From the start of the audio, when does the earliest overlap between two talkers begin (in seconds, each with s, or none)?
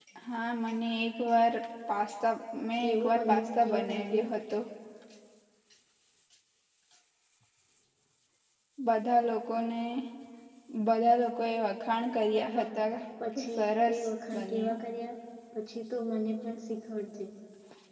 2.8 s